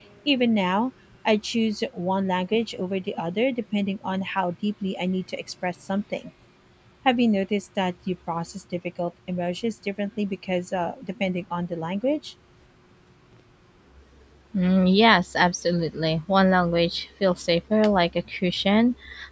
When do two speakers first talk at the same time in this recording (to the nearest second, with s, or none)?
none